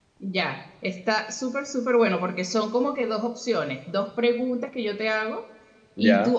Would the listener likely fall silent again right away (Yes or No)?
Yes